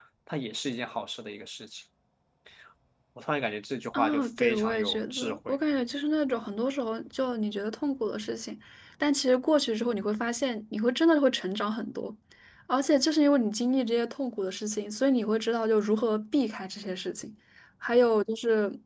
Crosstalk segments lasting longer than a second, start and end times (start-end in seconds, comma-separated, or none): 3.9-5.6